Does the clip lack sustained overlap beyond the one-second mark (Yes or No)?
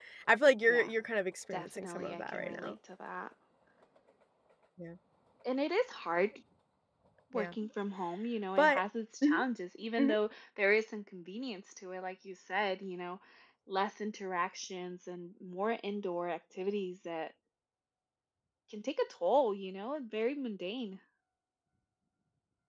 No